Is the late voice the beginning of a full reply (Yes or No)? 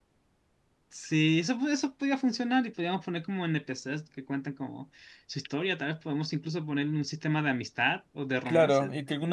Yes